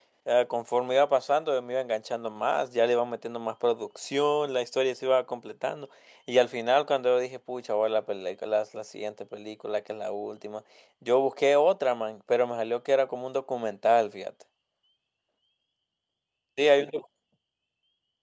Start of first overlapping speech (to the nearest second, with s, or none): none